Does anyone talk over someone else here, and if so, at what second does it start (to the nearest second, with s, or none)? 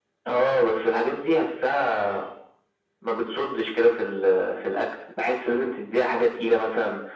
none